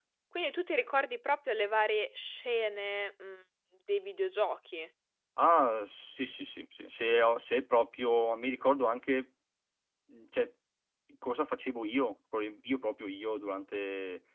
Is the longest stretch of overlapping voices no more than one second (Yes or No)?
Yes